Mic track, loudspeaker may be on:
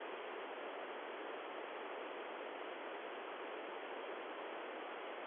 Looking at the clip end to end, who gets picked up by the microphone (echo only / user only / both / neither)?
neither